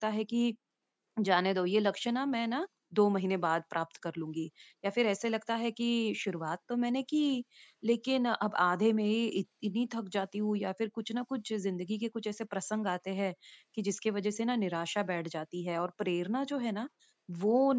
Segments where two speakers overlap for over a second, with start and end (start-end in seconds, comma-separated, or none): none